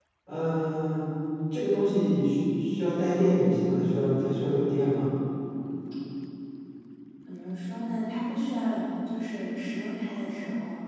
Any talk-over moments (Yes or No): No